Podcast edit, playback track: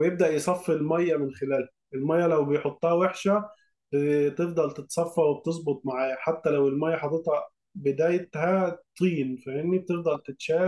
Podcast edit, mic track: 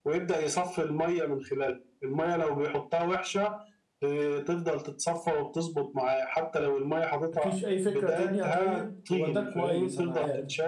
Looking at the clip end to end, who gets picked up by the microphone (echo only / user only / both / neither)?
both